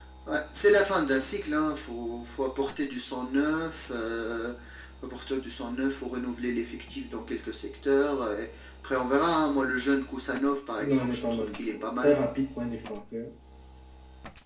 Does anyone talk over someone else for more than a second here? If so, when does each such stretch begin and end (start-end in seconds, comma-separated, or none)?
10.8-12.2